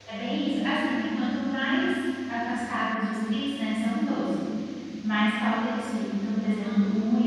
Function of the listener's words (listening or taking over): listening